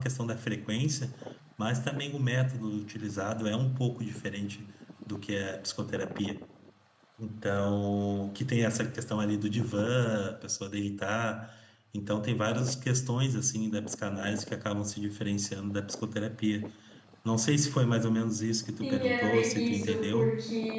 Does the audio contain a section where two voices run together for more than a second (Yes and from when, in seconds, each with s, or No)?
Yes, from 18.8 s